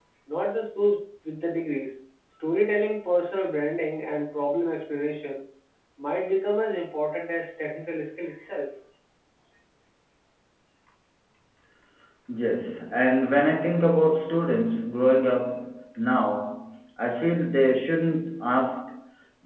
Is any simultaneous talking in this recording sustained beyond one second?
No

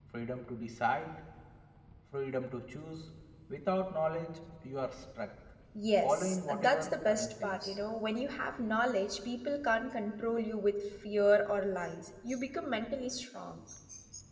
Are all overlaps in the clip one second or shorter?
No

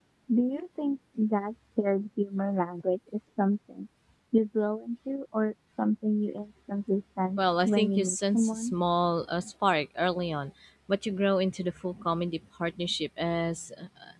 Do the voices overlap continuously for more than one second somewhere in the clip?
Yes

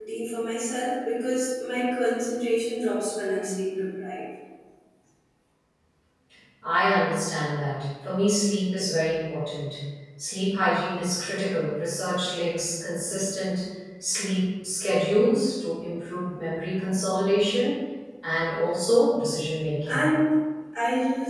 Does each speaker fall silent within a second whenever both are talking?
Yes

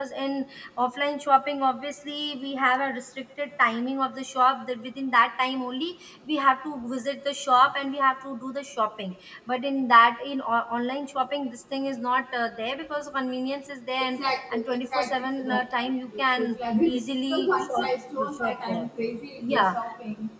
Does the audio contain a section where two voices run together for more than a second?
Yes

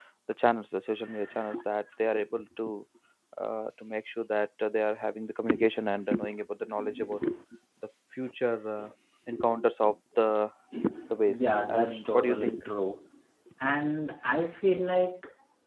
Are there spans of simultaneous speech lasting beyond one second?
Yes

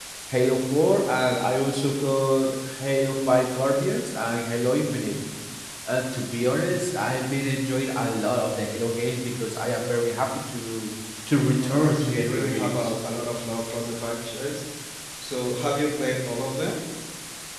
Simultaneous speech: Yes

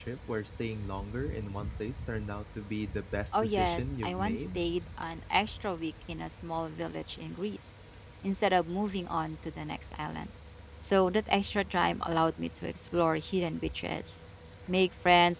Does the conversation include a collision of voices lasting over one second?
Yes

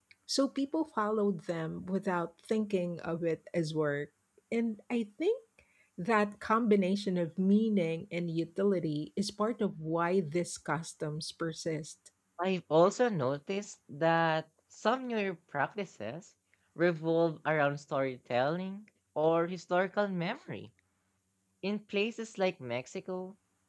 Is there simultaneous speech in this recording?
No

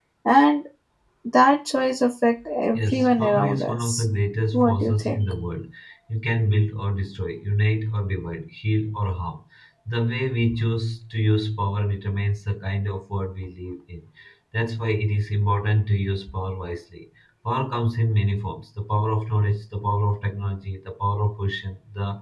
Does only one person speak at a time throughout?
No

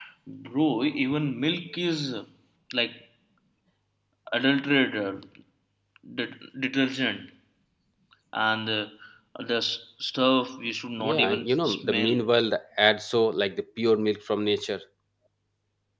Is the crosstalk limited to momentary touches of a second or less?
No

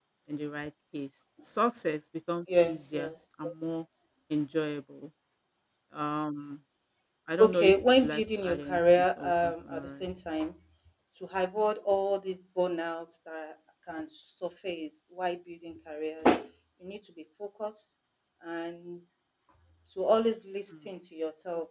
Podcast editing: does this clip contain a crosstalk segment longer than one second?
Yes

